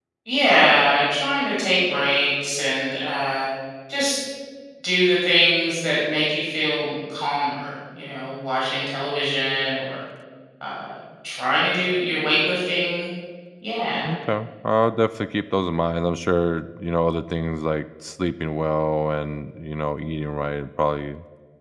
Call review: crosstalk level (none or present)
none